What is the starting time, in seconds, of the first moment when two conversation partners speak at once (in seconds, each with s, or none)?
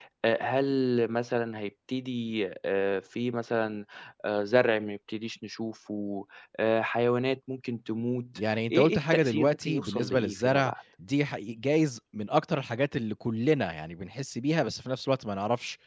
8.4 s